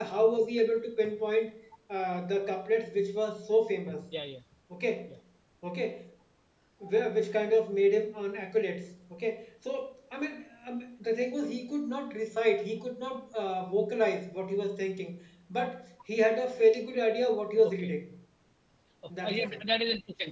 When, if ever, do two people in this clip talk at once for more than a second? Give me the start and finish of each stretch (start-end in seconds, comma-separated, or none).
none